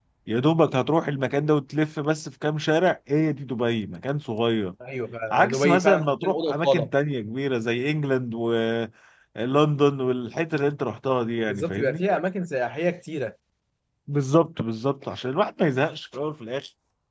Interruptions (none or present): present